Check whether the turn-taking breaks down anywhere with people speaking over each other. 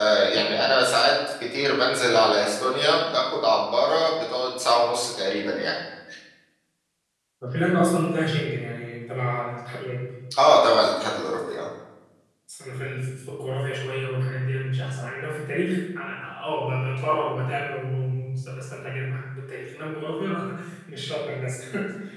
No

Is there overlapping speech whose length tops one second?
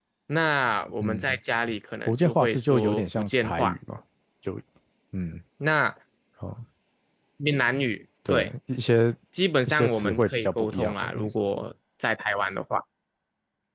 Yes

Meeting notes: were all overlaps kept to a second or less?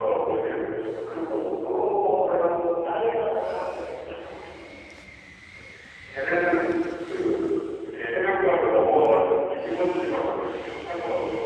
Yes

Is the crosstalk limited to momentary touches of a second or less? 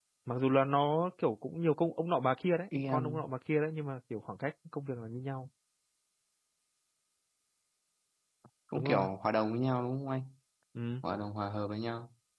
Yes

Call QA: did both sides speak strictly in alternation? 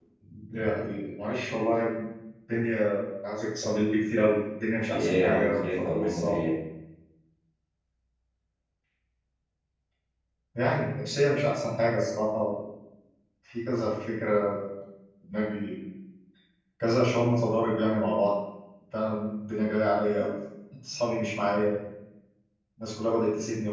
No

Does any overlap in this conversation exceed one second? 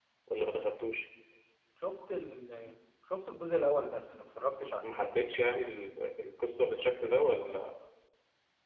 No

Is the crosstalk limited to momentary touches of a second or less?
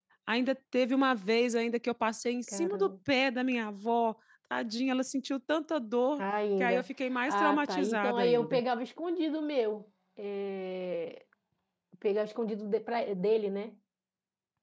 No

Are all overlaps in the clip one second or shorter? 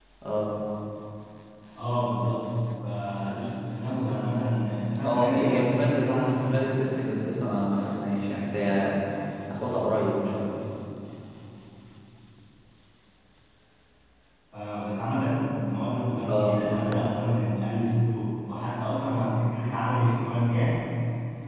No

